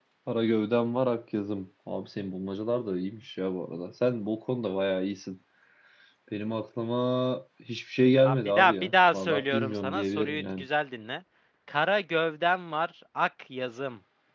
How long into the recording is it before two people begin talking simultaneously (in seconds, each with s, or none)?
8.2 s